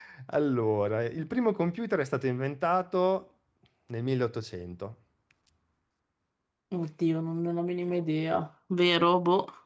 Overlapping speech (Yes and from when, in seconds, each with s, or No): No